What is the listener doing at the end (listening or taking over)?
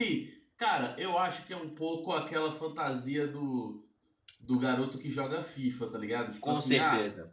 listening